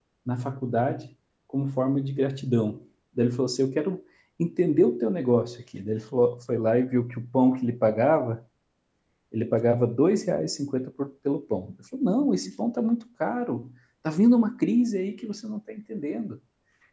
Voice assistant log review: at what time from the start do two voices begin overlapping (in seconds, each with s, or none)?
none